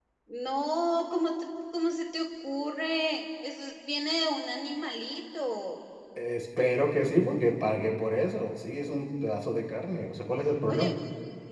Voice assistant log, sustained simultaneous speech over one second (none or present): none